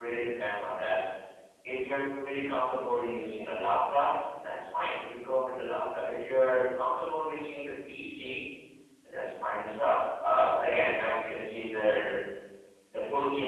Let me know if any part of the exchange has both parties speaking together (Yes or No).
No